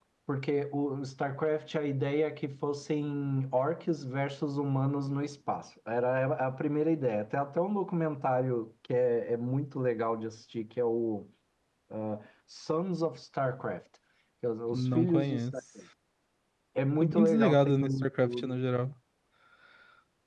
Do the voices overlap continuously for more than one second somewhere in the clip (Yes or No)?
Yes